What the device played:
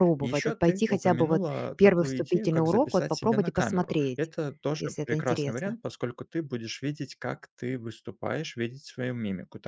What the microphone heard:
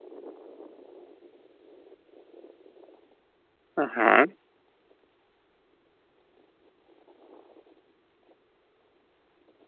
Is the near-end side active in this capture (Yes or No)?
Yes